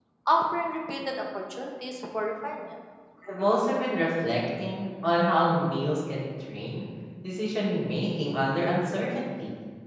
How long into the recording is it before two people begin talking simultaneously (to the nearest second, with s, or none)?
none